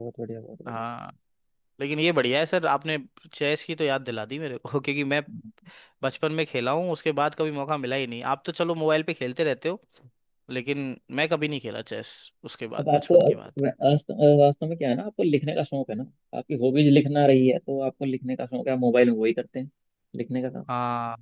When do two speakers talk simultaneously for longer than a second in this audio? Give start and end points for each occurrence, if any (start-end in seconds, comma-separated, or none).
none